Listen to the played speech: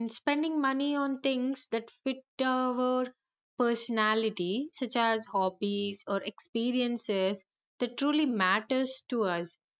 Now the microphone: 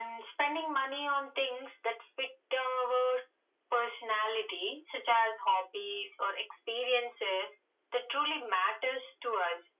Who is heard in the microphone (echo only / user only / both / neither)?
echo only